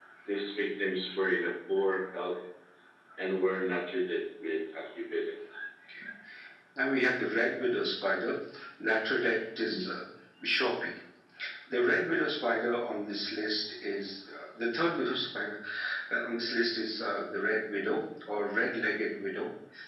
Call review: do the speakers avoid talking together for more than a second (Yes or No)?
Yes